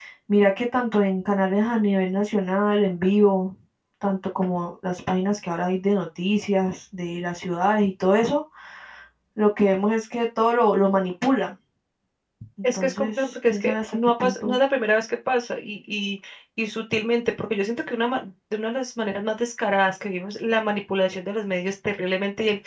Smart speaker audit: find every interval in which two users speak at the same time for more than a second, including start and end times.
12.7-14.6

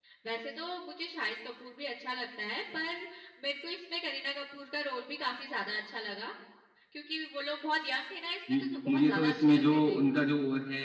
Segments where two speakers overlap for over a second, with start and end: 8.5-10.0

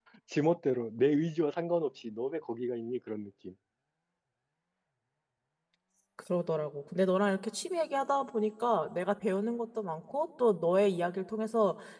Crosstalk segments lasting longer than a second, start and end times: none

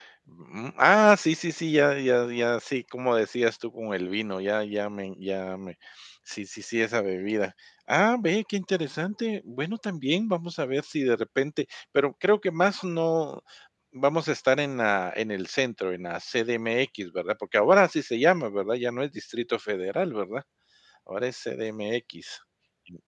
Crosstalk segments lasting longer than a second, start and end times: none

